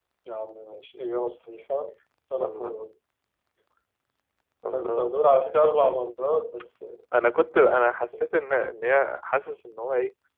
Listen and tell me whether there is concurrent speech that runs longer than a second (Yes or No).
No